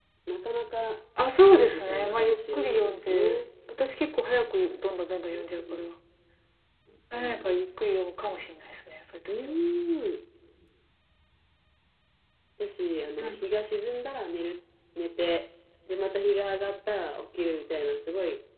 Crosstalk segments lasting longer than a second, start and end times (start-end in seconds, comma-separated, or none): 1.5-3.4